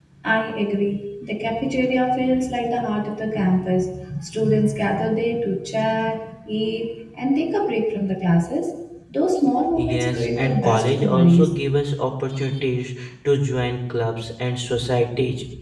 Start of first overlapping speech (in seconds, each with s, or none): 9.7 s